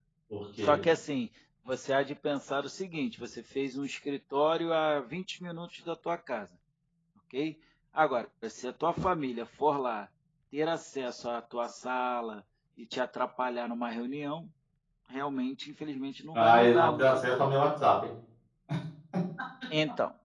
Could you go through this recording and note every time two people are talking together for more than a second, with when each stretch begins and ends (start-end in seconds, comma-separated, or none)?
16.3-17.6